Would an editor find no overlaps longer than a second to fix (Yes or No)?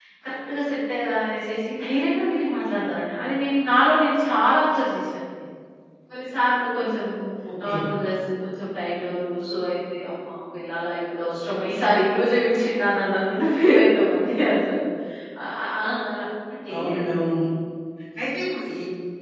Yes